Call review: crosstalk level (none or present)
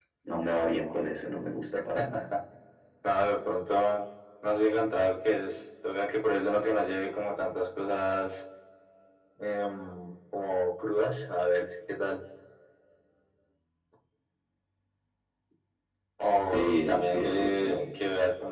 present